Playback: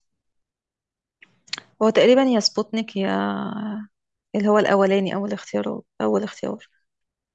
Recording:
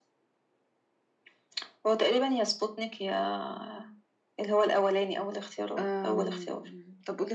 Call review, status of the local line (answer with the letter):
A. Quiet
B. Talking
B